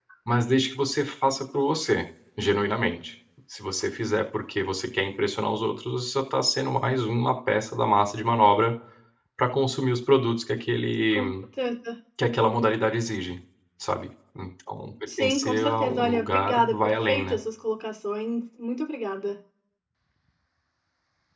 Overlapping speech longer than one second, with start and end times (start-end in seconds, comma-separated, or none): 15.2-17.4